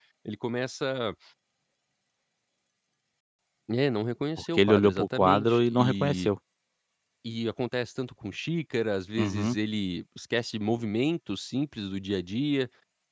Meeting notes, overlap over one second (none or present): present